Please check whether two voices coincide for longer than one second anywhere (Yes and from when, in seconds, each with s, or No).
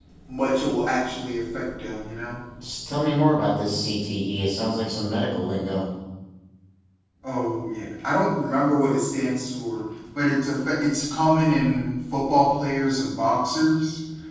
No